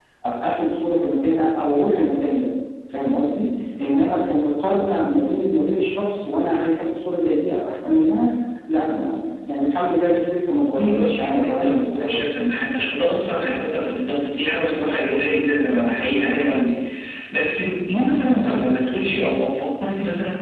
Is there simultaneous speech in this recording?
Yes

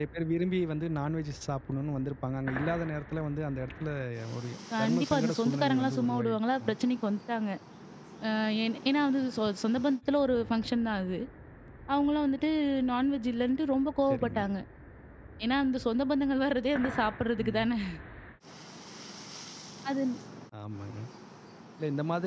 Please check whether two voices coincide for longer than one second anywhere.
Yes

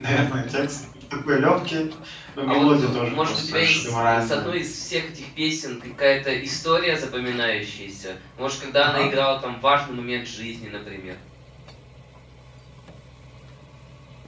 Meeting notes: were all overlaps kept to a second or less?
No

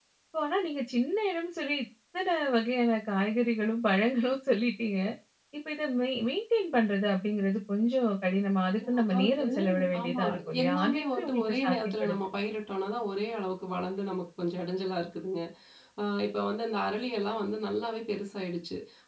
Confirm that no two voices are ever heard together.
No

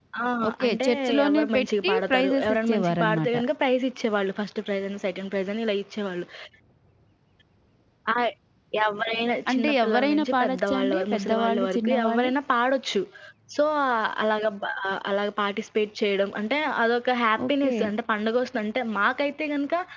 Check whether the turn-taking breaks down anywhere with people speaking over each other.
Yes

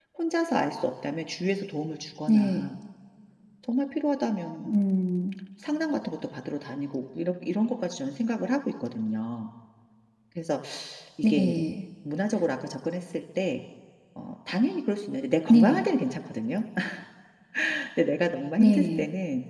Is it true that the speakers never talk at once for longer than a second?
Yes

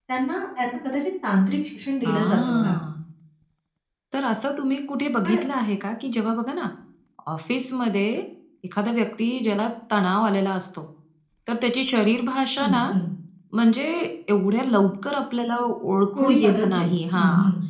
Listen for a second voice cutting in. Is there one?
Yes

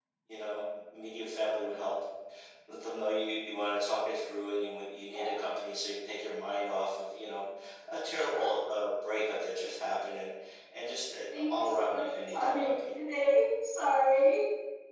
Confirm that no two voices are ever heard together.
No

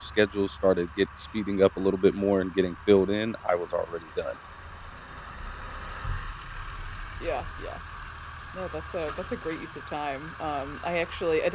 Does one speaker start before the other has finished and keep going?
No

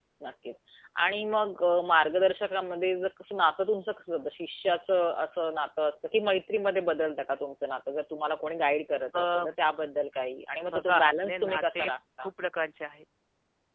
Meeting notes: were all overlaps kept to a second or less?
No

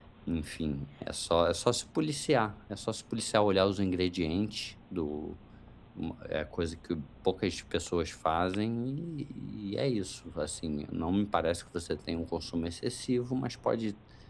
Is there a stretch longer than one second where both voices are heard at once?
No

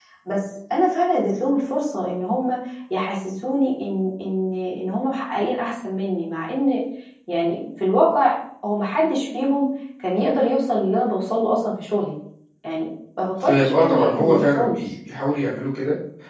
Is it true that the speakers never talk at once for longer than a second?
No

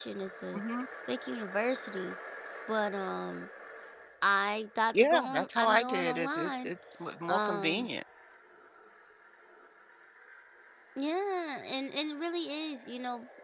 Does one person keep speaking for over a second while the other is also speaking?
Yes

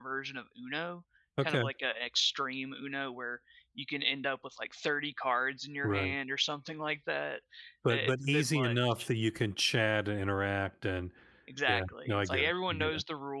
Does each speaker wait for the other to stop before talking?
No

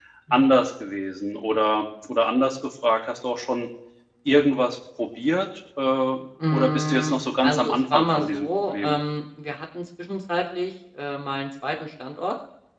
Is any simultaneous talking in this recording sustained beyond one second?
Yes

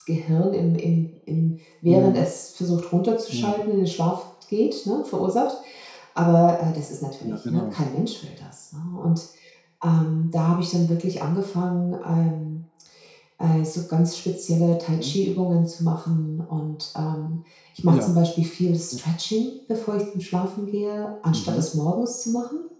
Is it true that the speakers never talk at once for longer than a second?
Yes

